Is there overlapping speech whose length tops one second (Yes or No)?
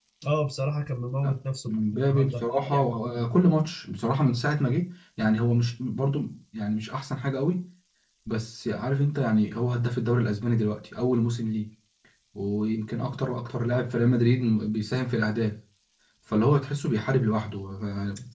Yes